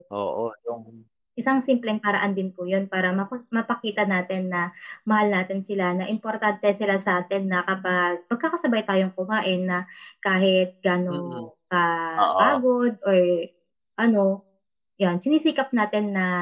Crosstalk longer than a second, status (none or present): none